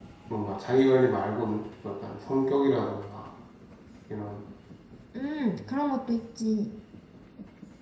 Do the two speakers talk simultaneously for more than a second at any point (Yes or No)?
No